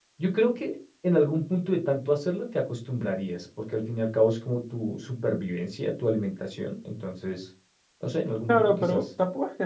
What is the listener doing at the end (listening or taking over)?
taking over